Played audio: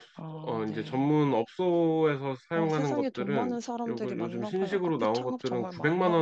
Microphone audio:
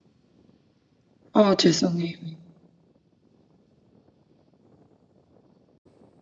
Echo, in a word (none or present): none